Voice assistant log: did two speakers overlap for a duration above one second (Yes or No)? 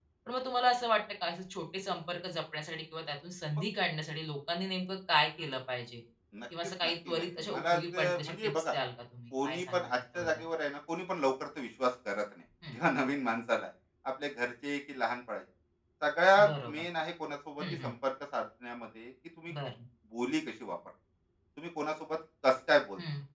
Yes